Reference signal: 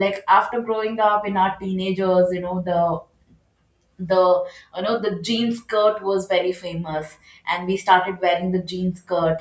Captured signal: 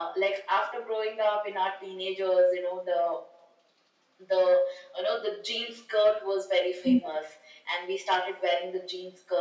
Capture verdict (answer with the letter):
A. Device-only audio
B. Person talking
B